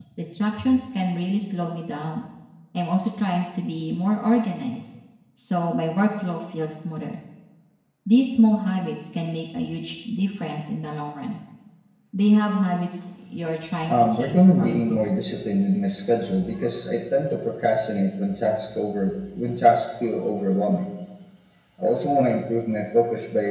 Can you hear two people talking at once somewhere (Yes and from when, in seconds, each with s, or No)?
Yes, from 13.8 s